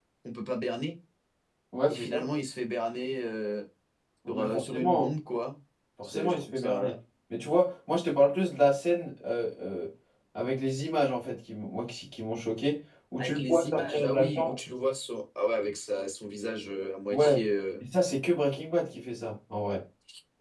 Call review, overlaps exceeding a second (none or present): present